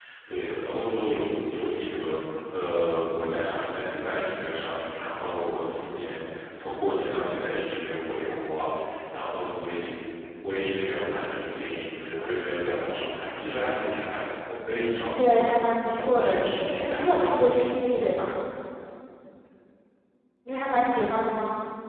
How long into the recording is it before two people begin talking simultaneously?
15.2 s

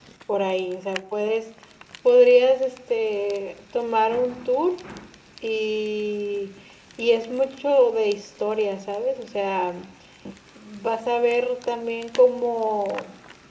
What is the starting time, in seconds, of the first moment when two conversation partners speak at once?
none

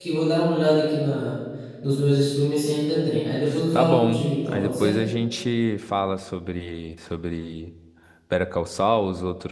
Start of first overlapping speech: 3.7 s

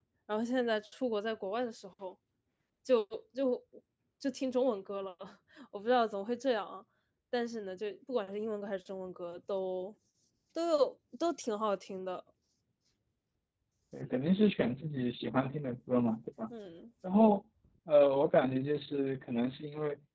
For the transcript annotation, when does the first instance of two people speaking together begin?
none

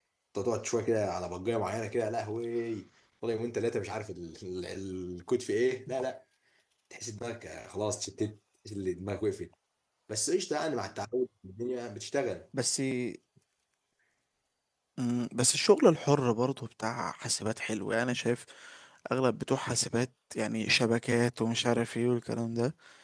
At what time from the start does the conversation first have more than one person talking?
none

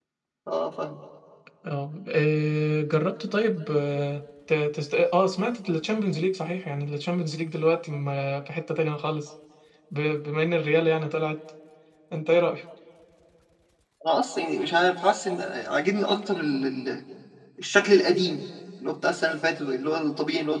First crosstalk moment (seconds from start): none

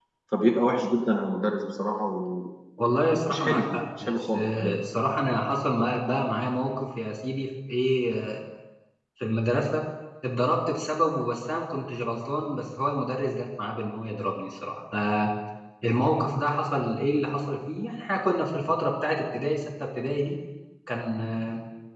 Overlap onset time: 3.4 s

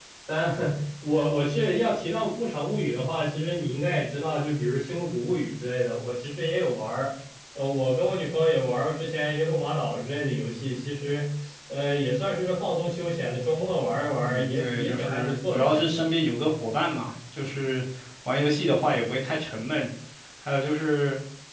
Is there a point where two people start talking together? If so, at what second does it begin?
14.2 s

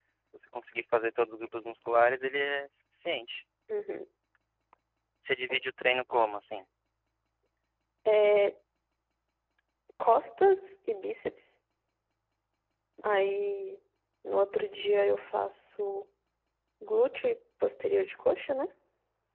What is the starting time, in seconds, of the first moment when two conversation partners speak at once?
none

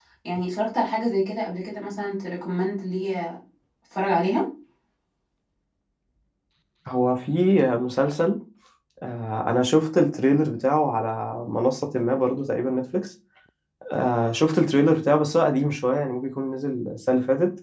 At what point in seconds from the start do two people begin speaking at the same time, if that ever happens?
none

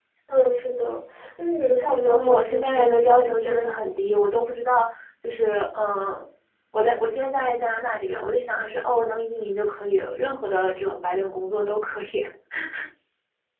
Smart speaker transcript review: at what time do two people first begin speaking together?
2.1 s

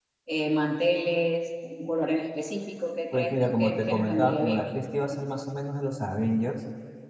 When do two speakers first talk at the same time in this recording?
3.1 s

